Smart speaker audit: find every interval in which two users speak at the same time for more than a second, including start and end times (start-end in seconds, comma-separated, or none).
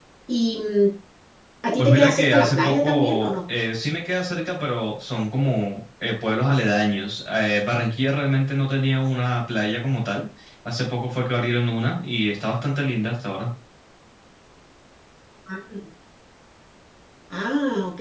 1.8-3.3